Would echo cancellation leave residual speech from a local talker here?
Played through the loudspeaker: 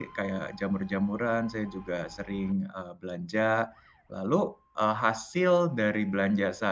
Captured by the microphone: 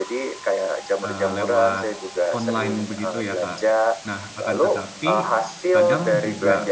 Yes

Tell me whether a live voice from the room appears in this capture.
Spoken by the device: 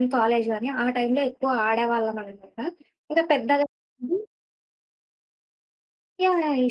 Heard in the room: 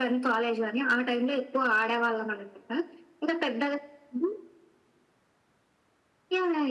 No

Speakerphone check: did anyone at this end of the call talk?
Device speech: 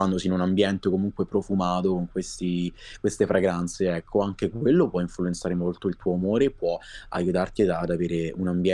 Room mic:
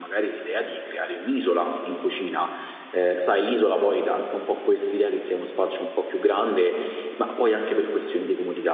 Yes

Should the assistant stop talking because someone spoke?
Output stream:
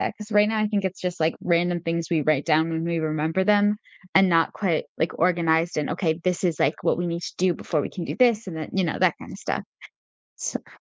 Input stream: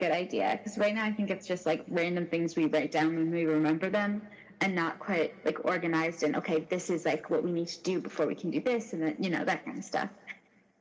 No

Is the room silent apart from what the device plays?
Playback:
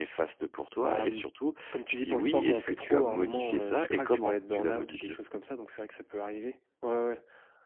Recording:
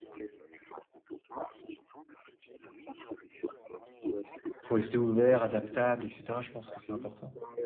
No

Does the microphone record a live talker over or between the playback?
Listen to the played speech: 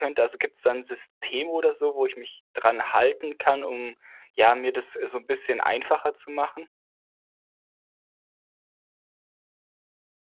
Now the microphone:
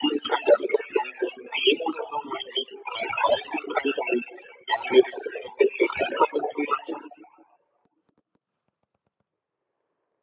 No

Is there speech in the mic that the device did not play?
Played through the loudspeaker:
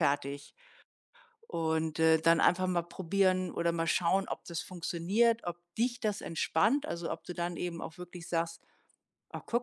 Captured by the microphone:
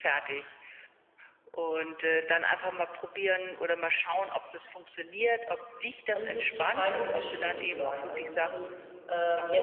Yes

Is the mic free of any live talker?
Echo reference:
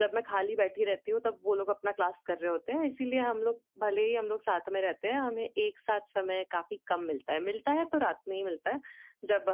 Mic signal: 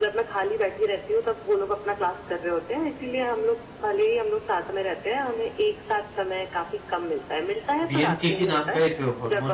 No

